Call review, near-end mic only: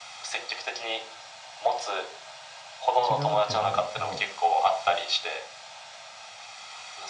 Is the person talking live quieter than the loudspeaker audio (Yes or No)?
Yes